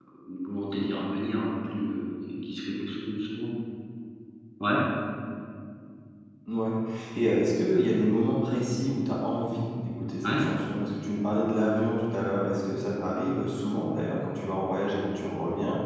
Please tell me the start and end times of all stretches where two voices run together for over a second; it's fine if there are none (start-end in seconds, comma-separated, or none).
none